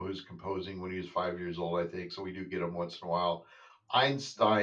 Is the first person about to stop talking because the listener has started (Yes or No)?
No